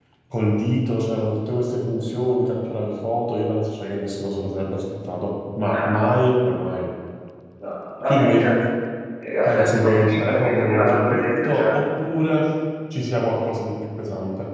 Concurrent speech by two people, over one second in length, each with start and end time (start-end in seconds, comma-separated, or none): 9.4-11.8